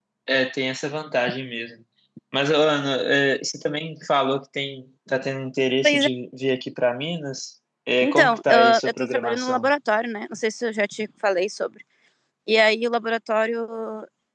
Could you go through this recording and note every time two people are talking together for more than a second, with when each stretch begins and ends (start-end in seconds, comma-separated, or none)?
8.0-9.7